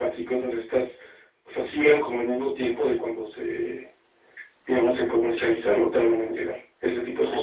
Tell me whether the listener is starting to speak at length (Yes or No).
Yes